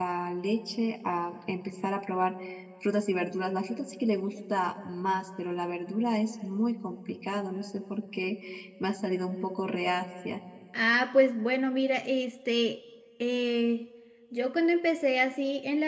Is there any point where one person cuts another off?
No

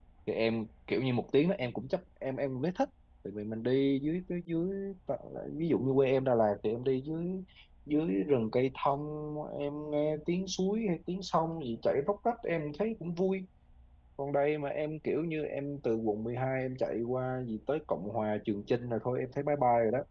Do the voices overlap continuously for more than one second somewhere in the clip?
No

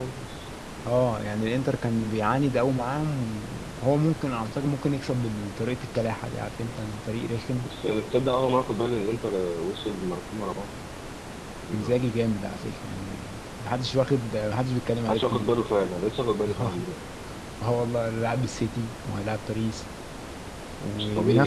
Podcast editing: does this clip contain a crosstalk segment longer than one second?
No

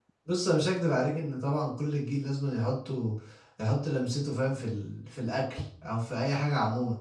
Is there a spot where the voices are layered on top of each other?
No

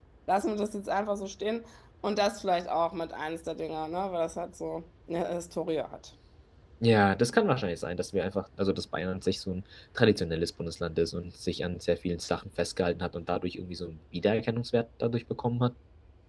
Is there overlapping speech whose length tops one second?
No

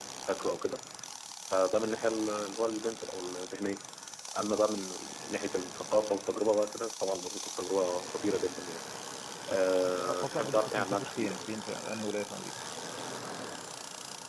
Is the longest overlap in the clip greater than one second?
Yes, from 9.8 s

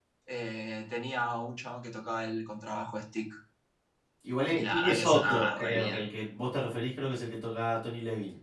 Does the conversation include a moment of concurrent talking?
Yes, from 4.5 s

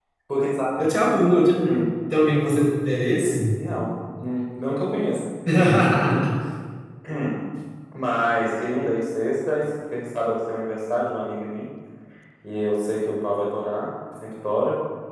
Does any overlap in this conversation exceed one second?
No

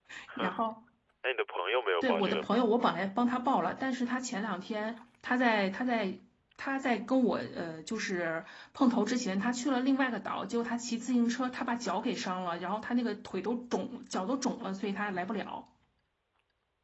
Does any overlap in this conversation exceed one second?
No

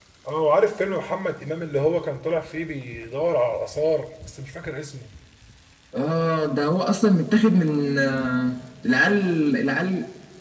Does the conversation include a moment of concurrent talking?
No

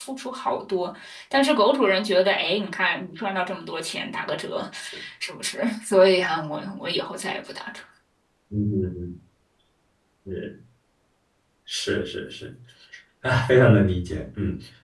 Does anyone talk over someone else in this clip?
No

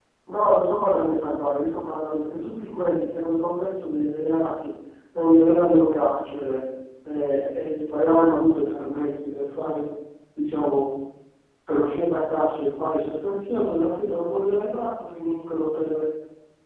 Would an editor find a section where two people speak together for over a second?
No

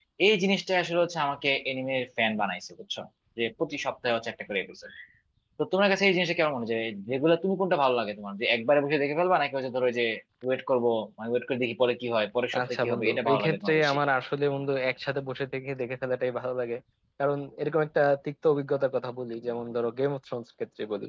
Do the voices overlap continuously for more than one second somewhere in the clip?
Yes, from 12.5 s

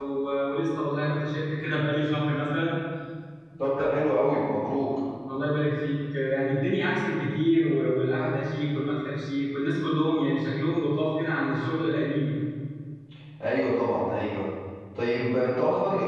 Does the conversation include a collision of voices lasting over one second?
No

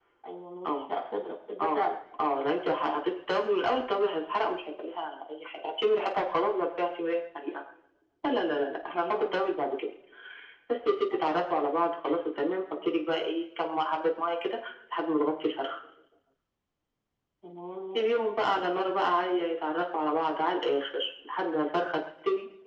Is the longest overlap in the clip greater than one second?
No

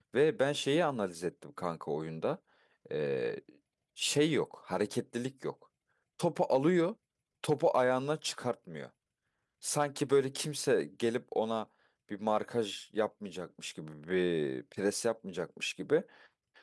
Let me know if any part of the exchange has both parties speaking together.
No

